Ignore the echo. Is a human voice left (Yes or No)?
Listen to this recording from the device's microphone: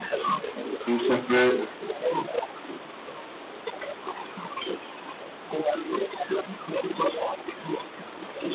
Yes